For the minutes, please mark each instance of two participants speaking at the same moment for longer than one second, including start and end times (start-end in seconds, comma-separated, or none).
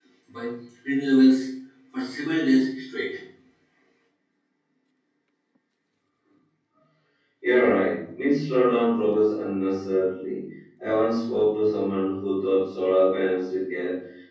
none